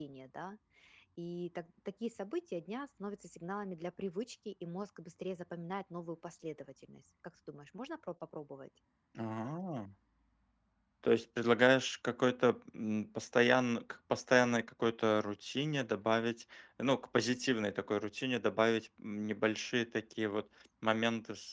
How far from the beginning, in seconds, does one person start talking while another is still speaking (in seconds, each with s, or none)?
none